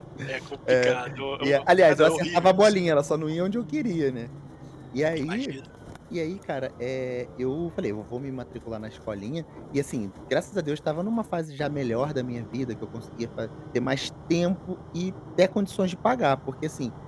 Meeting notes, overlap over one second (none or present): present